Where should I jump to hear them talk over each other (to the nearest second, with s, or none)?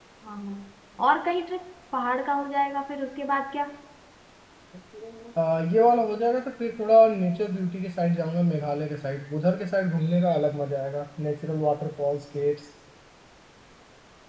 none